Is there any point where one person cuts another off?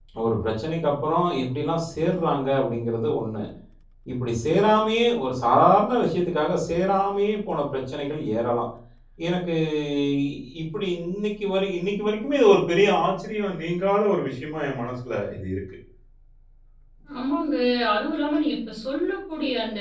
No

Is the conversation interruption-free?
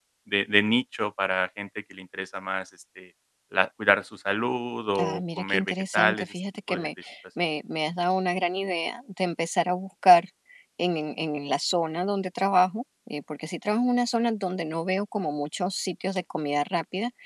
No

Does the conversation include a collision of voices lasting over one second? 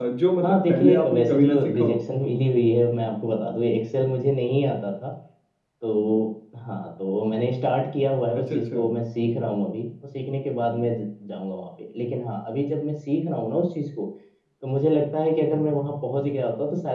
Yes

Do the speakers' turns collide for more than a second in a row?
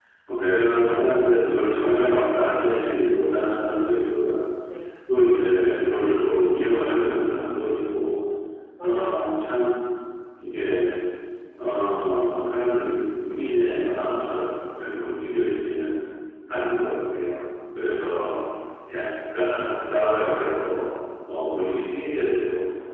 No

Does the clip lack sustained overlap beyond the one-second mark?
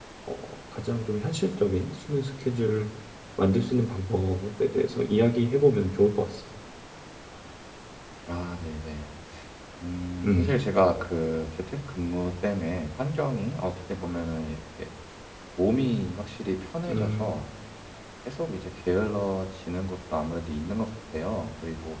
Yes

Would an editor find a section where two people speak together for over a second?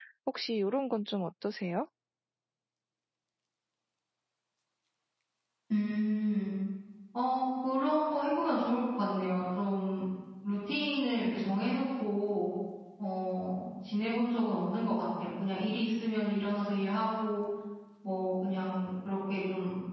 No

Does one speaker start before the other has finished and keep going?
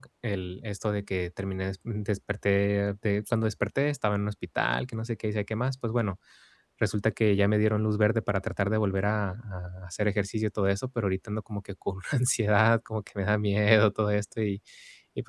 No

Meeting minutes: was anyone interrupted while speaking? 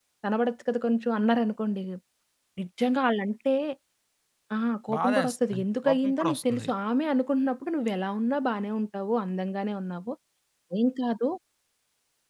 Yes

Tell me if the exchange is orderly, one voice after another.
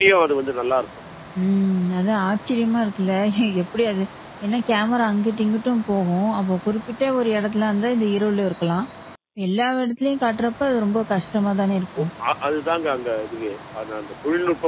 Yes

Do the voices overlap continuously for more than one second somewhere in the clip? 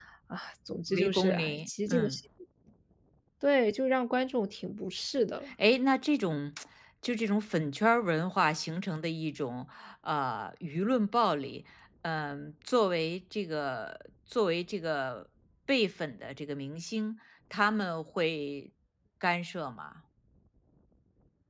Yes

